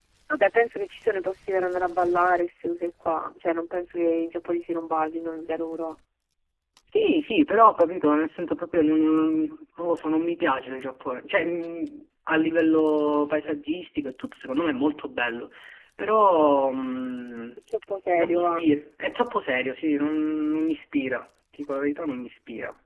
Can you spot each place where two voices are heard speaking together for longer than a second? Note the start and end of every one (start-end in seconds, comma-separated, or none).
none